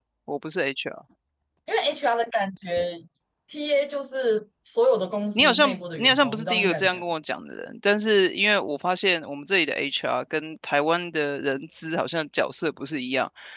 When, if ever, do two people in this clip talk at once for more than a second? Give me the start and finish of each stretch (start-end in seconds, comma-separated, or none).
5.3-7.0